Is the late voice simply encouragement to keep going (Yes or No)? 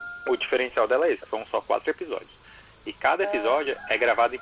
Yes